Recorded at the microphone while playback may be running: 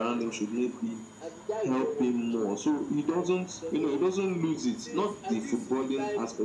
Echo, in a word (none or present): present